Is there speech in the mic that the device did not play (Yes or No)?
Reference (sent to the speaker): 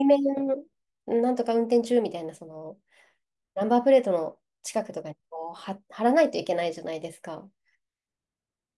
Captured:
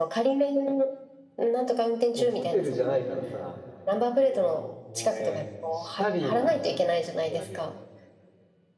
Yes